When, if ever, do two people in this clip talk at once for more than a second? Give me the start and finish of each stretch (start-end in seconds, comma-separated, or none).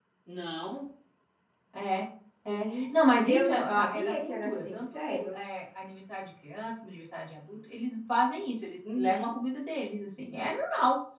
2.5-5.4